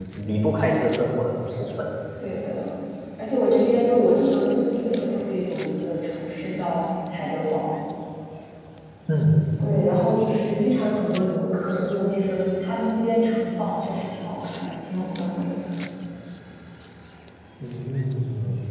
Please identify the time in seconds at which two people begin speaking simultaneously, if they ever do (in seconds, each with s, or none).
none